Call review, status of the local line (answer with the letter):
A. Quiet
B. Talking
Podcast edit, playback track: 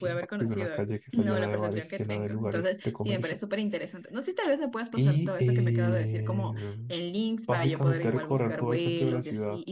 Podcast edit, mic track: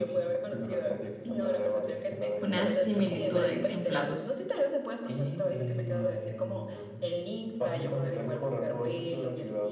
B